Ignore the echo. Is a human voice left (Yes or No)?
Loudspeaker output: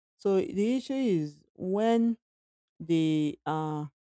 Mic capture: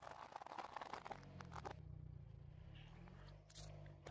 No